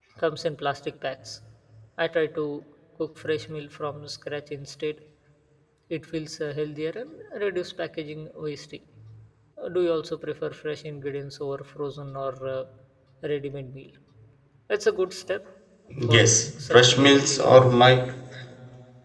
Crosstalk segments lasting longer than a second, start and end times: 16.1-17.5

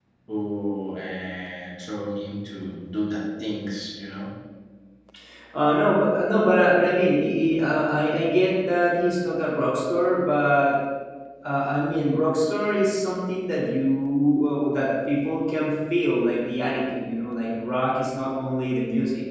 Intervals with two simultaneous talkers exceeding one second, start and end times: none

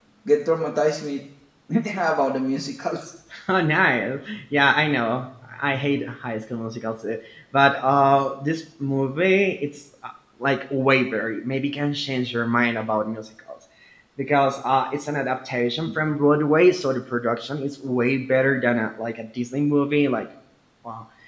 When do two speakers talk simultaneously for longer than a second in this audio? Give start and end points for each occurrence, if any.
none

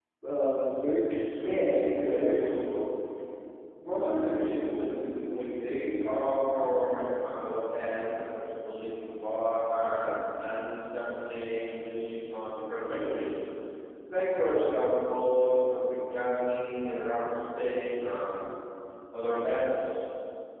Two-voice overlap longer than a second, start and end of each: 1.3-2.6

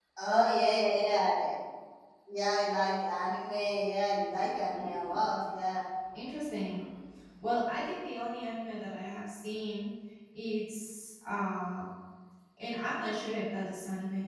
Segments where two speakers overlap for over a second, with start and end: none

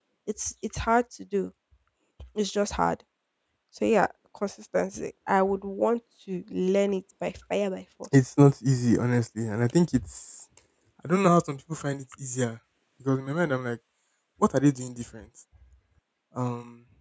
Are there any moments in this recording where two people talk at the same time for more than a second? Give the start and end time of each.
none

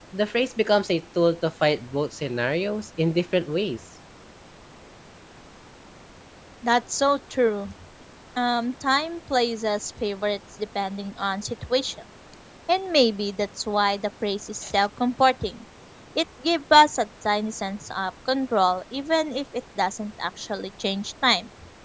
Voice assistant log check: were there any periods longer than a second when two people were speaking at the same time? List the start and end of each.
none

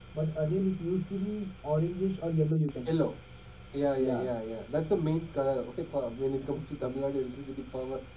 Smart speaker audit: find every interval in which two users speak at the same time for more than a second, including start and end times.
none

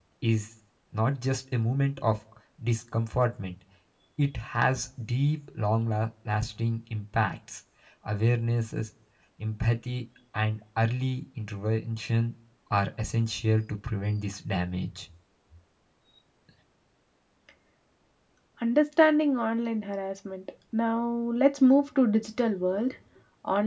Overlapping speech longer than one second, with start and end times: none

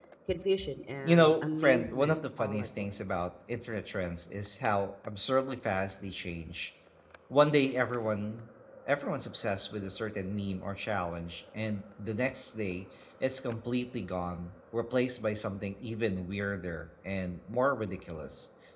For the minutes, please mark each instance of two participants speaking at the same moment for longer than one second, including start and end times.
1.0-3.2

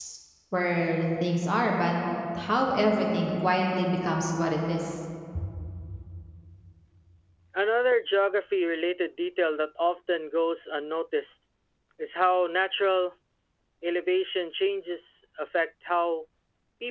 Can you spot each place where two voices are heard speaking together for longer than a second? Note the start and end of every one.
none

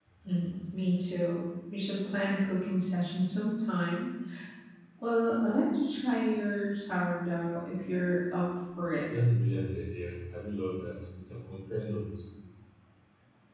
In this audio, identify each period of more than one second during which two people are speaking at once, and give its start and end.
none

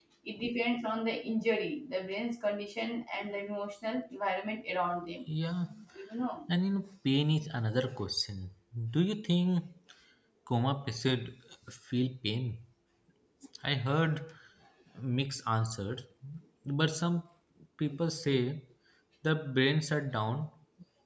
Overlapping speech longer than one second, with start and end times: none

